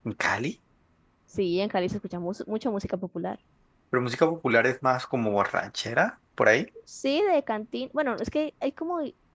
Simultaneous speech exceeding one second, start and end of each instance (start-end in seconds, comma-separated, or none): none